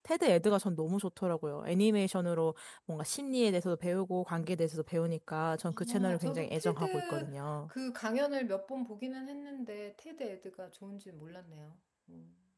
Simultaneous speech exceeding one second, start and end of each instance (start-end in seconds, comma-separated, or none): 5.7-7.3